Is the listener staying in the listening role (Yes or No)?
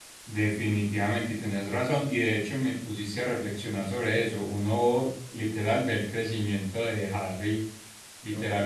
Yes